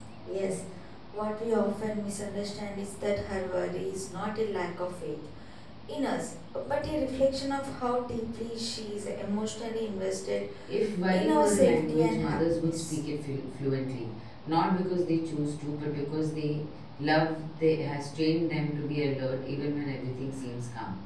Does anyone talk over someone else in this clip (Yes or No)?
Yes